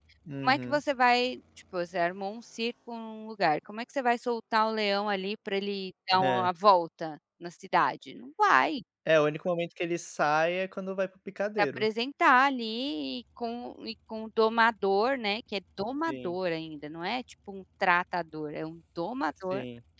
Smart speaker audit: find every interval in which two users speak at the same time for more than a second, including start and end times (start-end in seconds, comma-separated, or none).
none